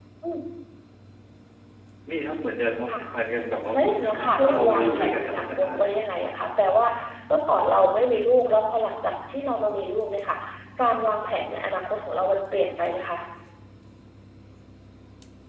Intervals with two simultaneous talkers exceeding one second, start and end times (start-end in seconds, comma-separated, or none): 3.7-6.0